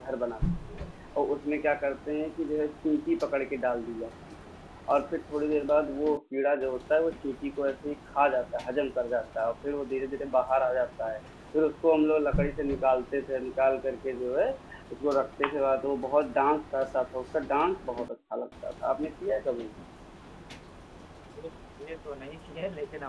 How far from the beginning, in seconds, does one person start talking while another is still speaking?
none

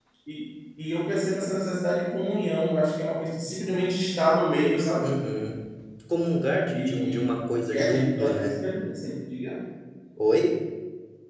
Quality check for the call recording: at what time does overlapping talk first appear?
6.7 s

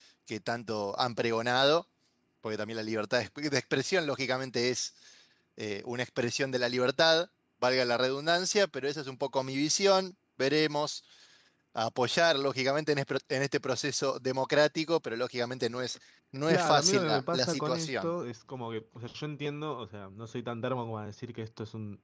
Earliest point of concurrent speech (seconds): 16.5 s

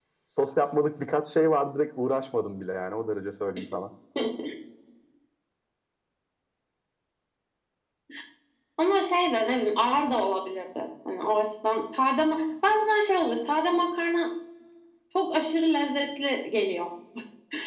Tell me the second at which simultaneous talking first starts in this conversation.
none

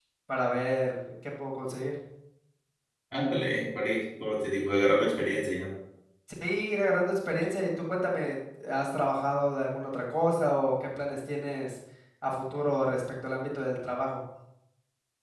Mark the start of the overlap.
none

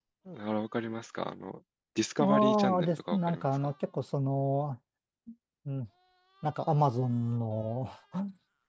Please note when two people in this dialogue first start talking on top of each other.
2.2 s

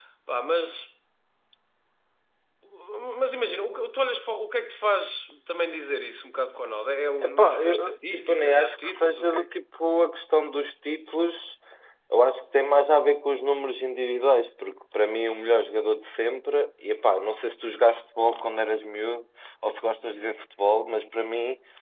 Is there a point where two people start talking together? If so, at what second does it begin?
7.2 s

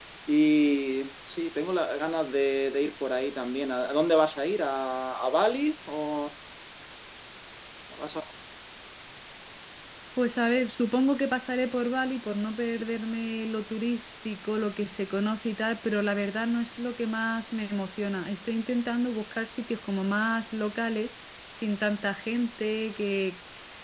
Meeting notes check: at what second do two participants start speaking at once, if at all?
none

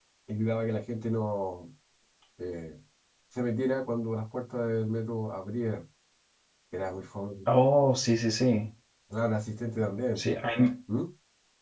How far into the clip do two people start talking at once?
none

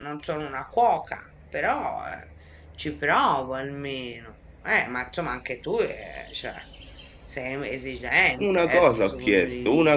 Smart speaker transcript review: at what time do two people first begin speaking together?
8.4 s

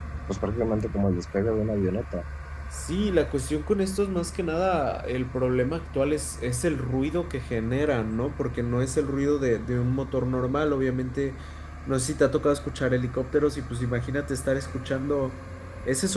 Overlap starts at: none

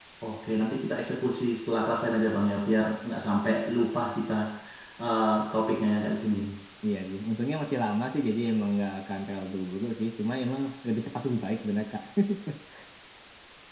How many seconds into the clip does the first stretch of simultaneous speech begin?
none

